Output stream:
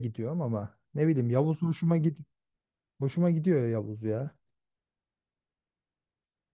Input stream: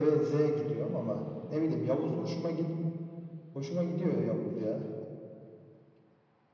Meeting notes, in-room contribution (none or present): none